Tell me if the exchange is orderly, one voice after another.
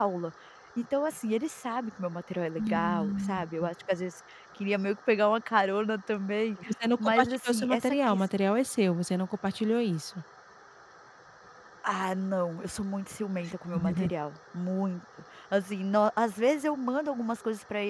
No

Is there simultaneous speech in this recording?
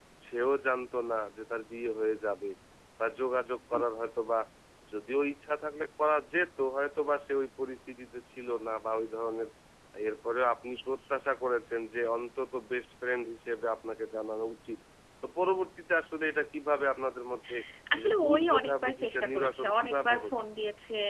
Yes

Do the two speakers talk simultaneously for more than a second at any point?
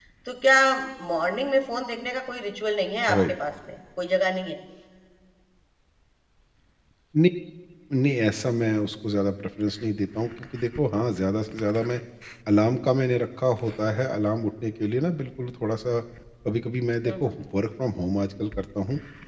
No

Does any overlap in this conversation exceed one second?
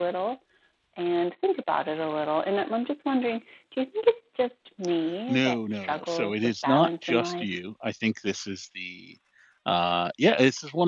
Yes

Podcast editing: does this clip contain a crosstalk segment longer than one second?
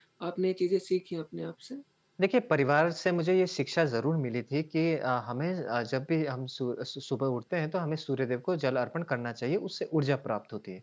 No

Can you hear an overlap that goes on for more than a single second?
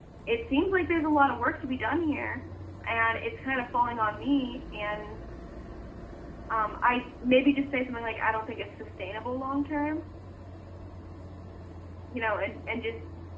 No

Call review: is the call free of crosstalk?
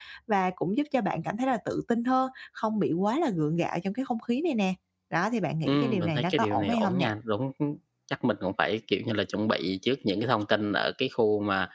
No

